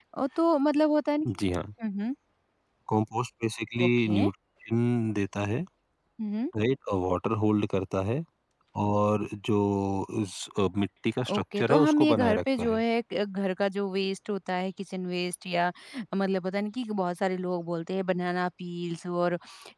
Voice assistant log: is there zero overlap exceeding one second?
No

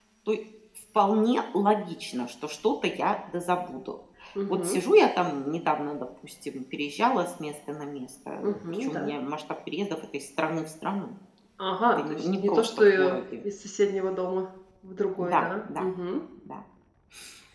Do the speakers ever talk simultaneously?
Yes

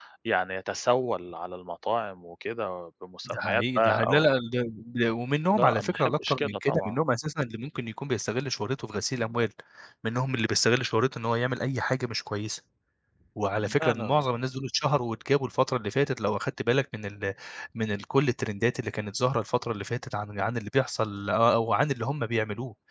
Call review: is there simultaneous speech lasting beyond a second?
Yes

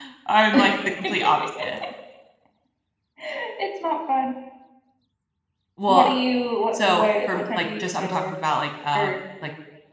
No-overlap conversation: No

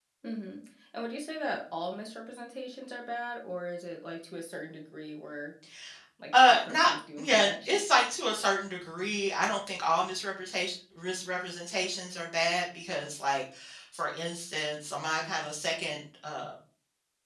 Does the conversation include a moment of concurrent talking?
Yes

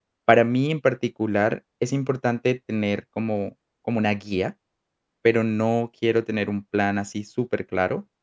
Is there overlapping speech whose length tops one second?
No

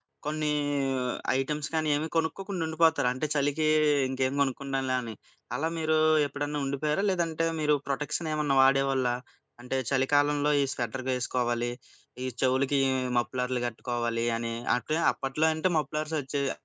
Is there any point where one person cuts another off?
No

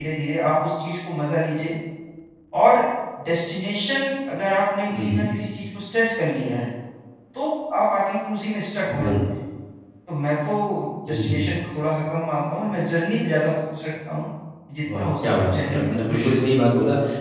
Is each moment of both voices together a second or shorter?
No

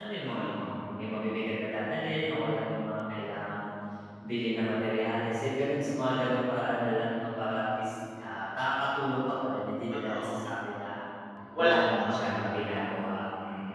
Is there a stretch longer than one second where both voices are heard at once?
Yes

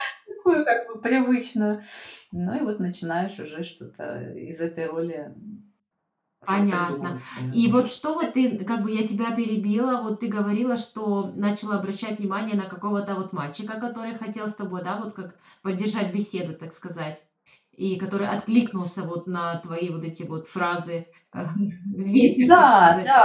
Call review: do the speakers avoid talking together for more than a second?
No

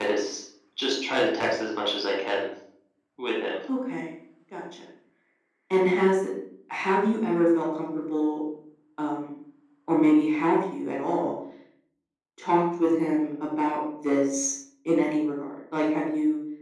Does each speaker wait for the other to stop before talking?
Yes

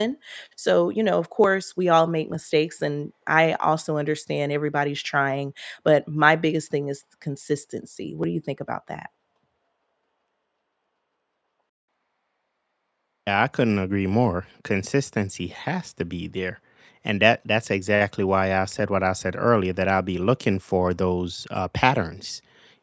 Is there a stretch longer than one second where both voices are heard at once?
No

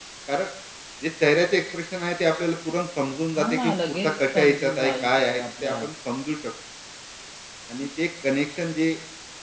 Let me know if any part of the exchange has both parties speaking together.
Yes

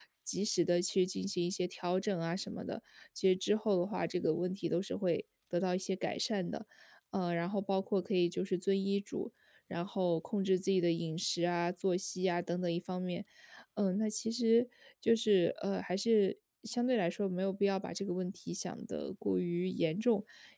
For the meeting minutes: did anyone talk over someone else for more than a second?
No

